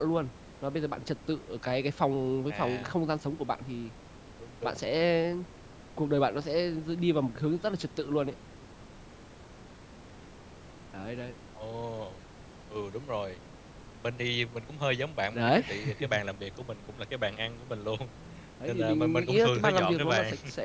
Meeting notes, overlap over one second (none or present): present